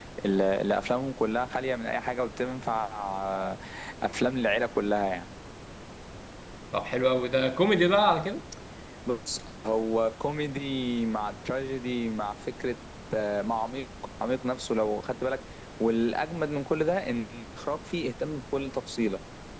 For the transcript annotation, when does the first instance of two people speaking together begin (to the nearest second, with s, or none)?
none